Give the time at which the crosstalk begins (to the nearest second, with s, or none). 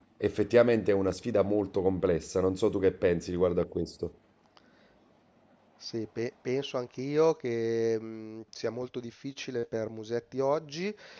none